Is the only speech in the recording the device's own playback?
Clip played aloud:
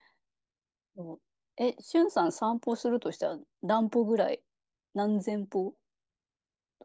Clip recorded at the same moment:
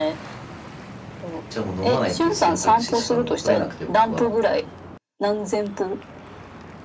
No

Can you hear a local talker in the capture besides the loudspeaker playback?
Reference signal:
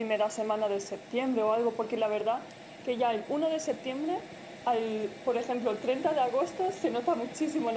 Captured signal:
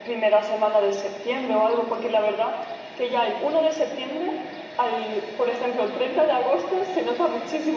No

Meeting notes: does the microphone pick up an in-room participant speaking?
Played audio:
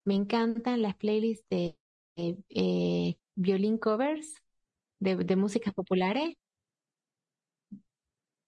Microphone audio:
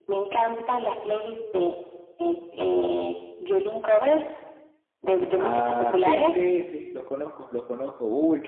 Yes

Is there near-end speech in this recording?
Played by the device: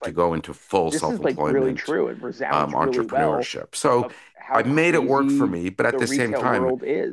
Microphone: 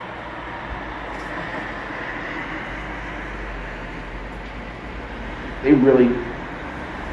Yes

